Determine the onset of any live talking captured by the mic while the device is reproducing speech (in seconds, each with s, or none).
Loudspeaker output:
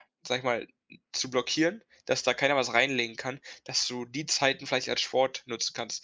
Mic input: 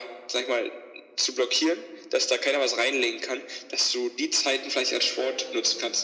none